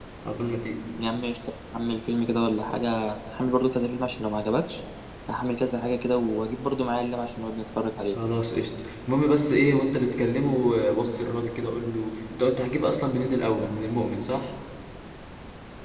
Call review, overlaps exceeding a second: none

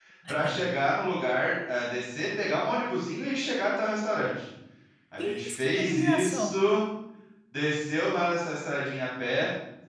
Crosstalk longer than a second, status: present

